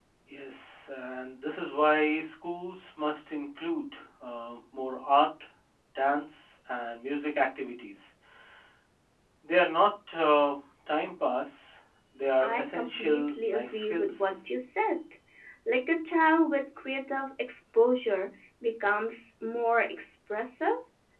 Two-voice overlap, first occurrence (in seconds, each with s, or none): 12.4 s